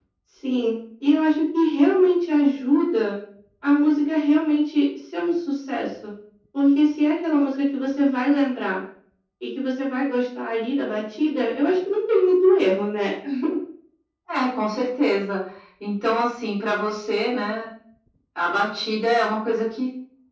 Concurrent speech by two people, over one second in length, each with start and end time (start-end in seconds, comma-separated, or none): none